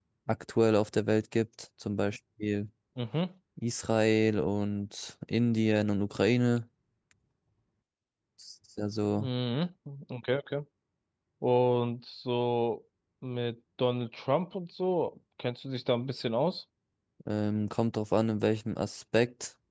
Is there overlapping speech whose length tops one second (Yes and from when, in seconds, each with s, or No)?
No